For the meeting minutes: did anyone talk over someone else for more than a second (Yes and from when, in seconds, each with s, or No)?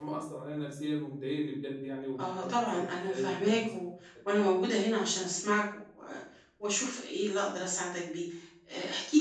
Yes, from 2.2 s